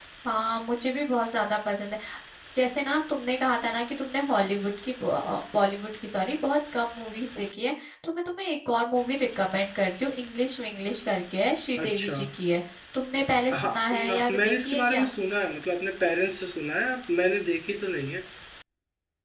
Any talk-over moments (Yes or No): Yes